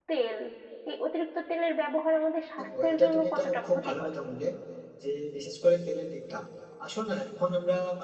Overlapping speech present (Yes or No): Yes